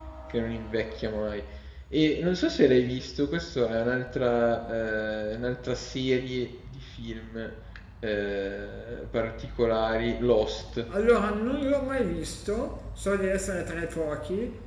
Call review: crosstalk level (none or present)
none